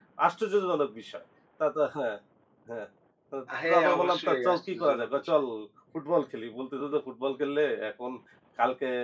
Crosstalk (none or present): present